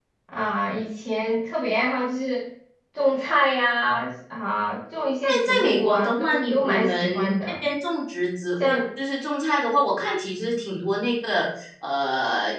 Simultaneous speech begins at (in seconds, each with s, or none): 5.4 s